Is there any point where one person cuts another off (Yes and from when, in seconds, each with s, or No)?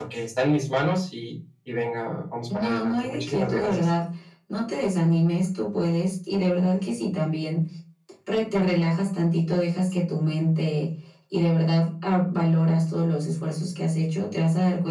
Yes, from 2.5 s